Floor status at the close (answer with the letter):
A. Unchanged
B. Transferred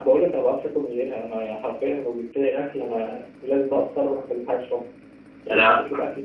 A